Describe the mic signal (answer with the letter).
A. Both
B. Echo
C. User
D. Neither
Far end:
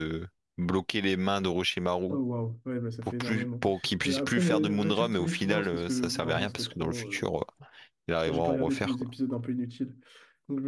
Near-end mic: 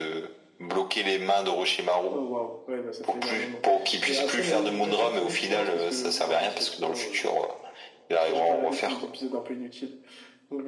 B